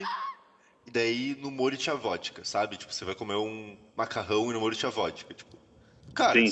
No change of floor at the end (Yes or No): Yes